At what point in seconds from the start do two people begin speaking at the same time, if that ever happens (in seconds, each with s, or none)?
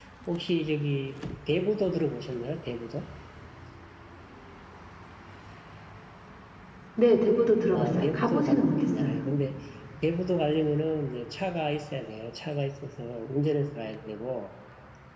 7.7 s